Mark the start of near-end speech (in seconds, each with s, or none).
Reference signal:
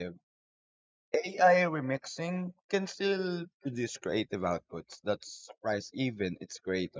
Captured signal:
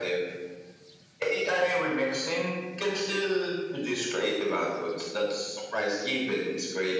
none